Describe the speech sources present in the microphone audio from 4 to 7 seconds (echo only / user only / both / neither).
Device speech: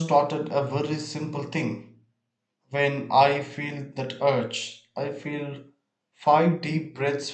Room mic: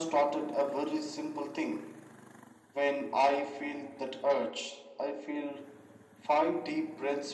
echo only